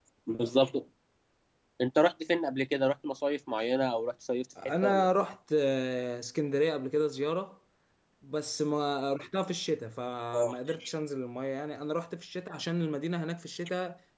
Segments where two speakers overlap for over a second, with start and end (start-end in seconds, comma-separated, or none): none